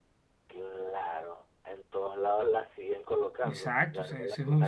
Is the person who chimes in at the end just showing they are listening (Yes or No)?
No